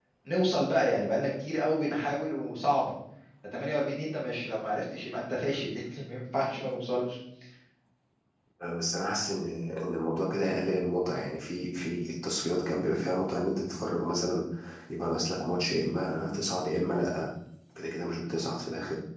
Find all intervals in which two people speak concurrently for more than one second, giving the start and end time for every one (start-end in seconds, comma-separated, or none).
none